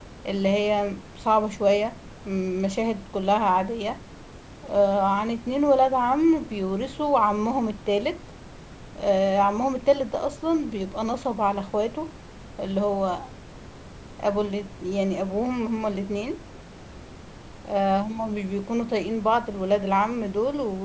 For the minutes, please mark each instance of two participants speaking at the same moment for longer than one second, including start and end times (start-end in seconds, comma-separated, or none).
none